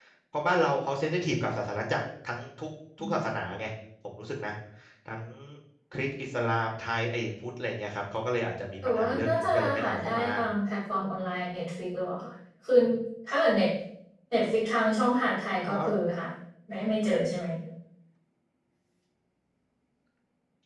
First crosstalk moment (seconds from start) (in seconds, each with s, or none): 8.9 s